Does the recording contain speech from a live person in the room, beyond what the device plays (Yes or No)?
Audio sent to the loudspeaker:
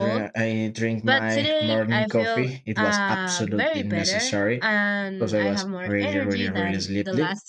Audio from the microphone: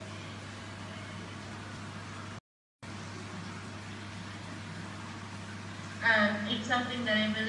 Yes